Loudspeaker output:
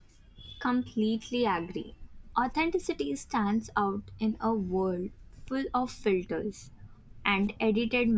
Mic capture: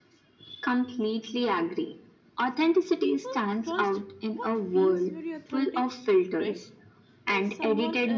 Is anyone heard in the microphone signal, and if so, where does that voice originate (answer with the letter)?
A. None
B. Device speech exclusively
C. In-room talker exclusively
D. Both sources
D